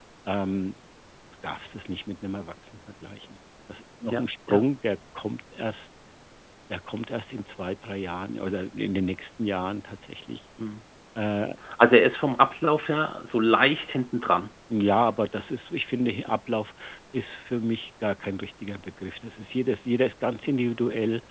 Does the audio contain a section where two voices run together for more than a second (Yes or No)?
No